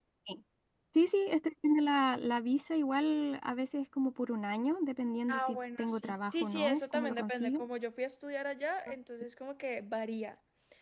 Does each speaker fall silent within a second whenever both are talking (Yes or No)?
No